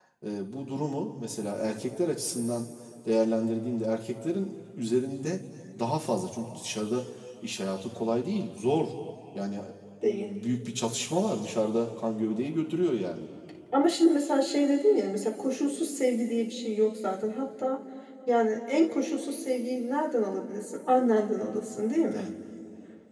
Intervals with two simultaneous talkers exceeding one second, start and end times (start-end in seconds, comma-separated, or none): none